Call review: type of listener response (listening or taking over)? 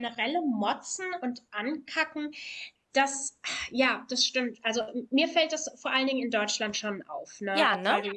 listening